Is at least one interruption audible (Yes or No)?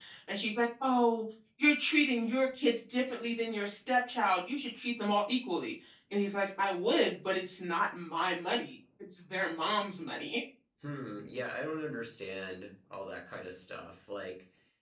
No